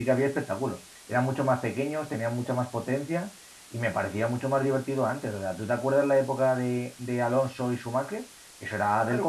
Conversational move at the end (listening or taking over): taking over